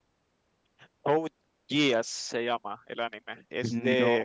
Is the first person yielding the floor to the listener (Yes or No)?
No